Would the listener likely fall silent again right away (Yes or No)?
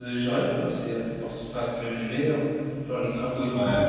Yes